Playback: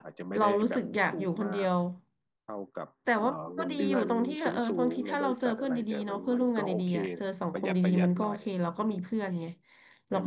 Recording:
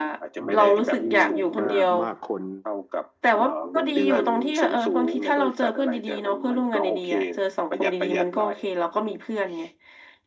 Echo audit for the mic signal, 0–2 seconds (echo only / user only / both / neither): both